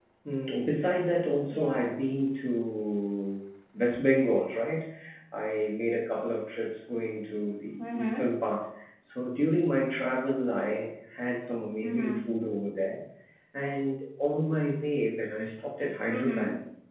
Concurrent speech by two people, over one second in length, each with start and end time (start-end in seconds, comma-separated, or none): none